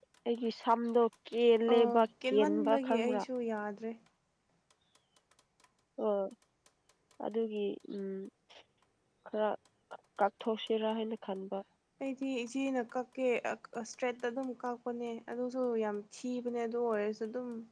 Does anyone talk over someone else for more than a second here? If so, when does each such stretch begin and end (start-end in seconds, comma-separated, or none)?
1.7-3.2